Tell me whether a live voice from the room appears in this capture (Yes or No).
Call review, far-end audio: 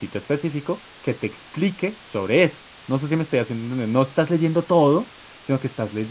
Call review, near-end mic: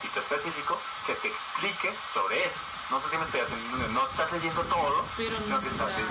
Yes